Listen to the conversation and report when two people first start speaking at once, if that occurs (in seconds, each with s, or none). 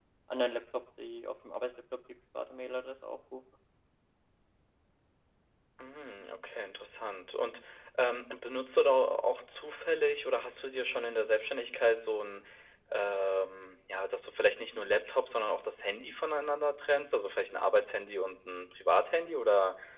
none